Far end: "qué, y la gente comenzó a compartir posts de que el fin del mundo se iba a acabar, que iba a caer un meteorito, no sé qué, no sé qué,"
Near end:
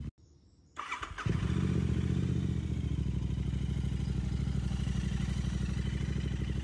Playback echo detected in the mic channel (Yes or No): No